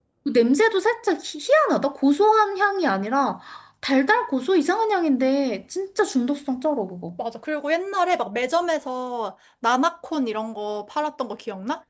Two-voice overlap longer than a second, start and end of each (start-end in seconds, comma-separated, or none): none